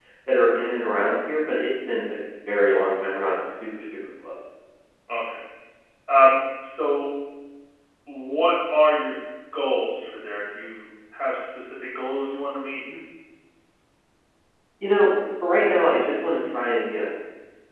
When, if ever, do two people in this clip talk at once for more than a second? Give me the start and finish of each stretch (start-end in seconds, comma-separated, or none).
none